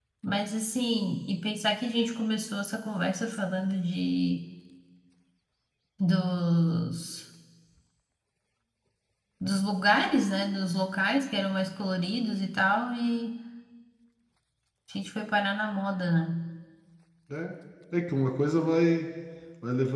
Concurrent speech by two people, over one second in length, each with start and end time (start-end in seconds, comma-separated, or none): none